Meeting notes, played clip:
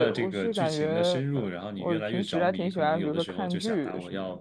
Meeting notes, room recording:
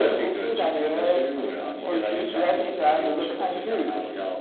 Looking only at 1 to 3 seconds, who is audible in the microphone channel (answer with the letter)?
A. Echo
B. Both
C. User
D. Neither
A